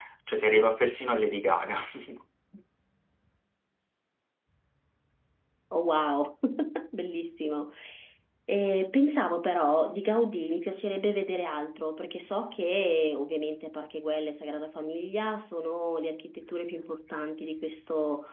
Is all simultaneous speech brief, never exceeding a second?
Yes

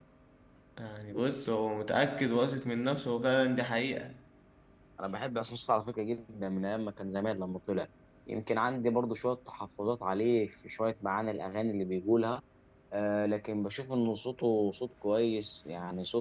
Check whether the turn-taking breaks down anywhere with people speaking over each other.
No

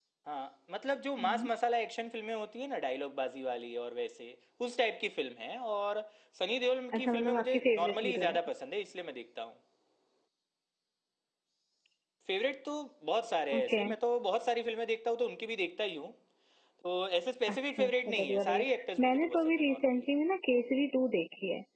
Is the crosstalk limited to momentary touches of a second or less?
No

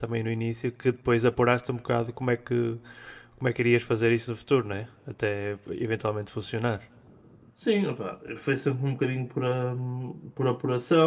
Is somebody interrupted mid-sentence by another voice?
No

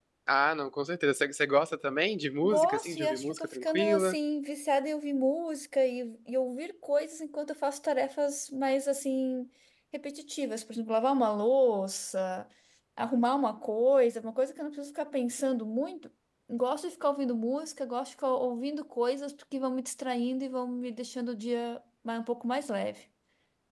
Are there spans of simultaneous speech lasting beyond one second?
Yes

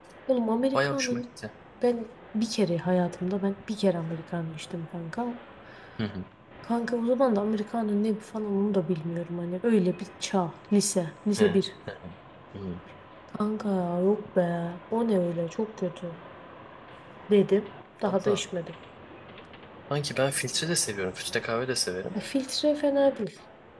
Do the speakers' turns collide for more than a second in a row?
No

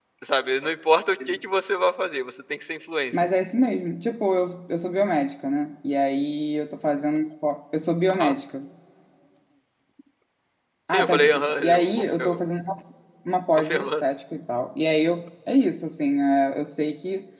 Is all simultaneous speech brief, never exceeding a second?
No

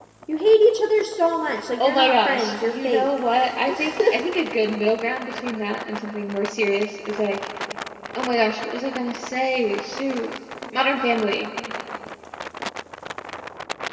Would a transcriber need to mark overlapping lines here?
Yes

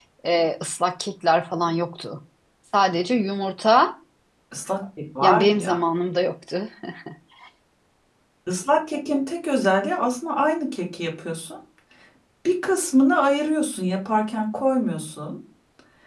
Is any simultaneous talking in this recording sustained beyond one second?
No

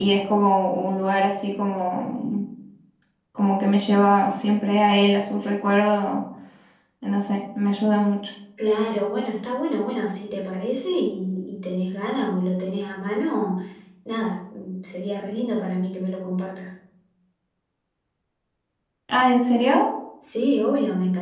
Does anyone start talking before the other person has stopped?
No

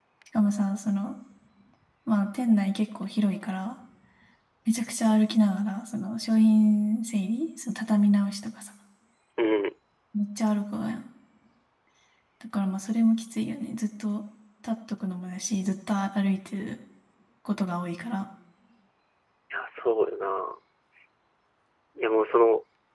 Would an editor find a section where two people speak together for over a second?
No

